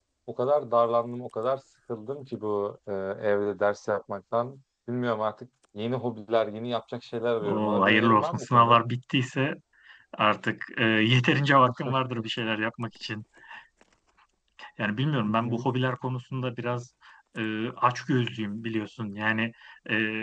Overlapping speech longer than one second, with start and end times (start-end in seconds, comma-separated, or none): 7.4-8.8